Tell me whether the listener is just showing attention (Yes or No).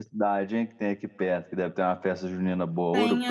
No